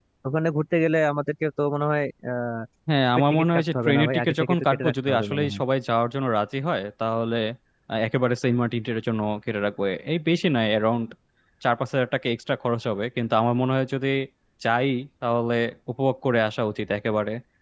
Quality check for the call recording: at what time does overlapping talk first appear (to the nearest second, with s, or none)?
3 s